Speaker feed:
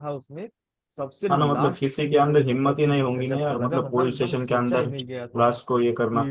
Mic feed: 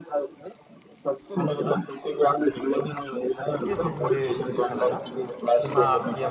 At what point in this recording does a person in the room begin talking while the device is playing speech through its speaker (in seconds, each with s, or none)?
3.7 s